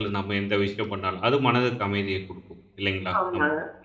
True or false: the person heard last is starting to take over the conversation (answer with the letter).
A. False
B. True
B